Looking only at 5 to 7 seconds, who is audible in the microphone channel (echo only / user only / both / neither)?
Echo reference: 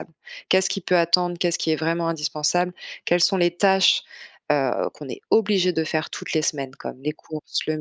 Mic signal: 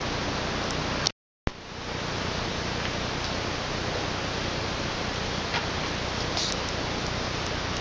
neither